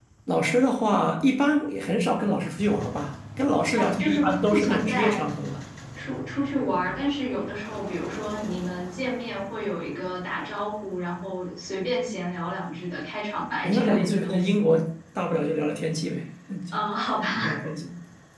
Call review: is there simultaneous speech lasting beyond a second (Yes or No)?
Yes